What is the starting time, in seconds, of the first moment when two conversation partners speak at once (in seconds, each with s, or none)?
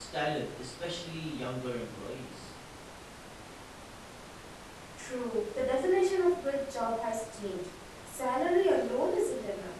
none